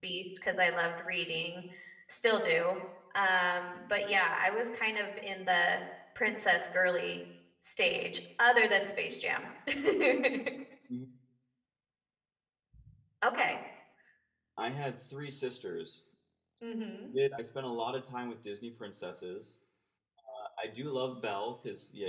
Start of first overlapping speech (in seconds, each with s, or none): none